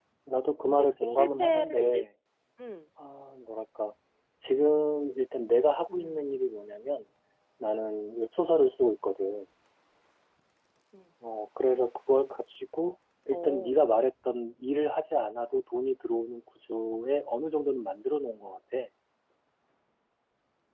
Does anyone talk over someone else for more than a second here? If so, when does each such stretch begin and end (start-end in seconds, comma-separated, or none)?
0.6-2.0